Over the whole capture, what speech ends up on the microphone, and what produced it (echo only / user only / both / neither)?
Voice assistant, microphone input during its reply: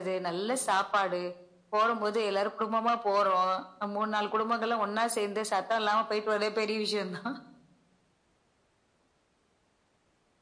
echo only